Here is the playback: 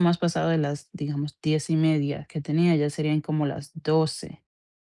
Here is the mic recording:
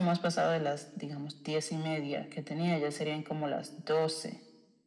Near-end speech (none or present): none